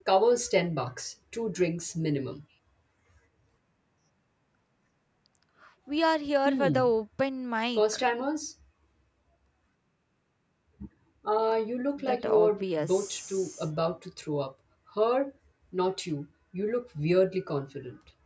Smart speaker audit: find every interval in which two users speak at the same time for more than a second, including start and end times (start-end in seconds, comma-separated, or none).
12.0-13.6